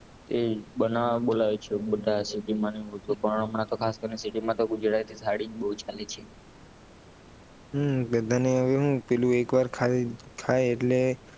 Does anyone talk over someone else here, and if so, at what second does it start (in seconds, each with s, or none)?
none